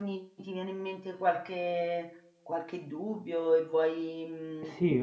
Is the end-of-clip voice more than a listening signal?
Yes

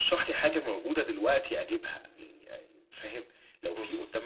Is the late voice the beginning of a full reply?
No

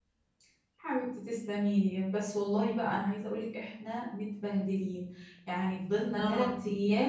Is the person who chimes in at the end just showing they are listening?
Yes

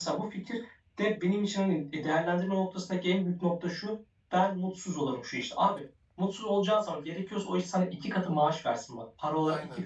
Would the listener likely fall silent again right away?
Yes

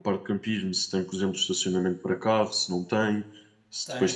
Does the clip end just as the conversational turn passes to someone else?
Yes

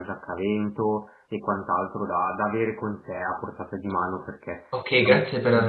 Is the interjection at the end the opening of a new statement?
Yes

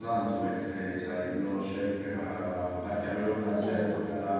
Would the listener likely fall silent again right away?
Yes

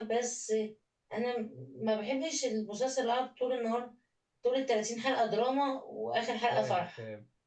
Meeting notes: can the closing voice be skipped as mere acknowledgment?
No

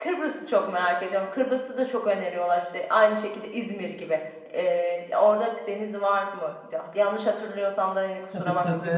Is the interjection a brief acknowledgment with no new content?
No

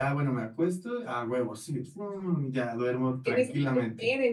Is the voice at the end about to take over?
Yes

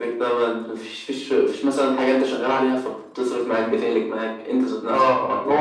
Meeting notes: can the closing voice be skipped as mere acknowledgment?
No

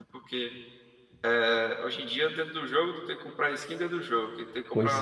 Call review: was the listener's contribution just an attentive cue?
Yes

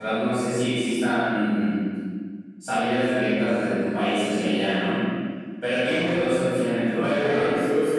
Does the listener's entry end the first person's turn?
Yes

